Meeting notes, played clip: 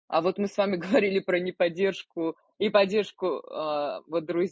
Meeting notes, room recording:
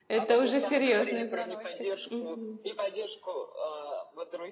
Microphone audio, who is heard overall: both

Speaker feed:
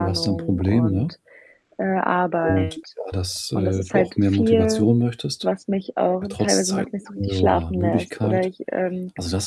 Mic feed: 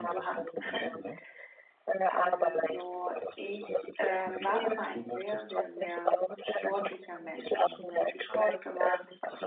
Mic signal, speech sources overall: both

